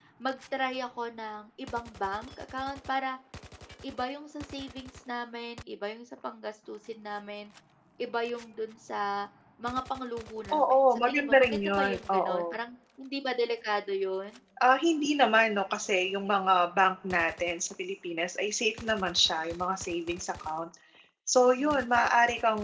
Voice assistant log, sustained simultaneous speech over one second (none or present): present